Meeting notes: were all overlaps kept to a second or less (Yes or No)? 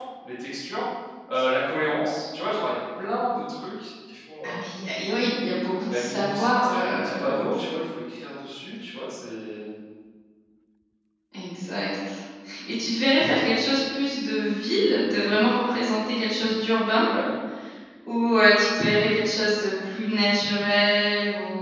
No